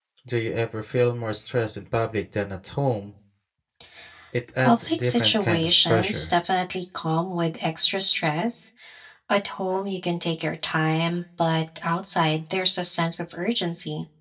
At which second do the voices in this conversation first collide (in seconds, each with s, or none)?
4.6 s